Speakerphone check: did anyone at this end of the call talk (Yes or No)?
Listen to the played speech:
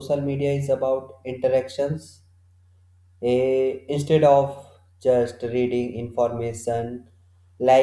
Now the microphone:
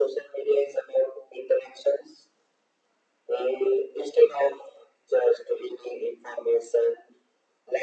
No